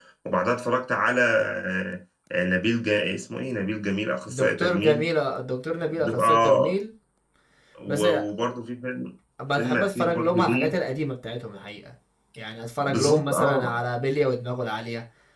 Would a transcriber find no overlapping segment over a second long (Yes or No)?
No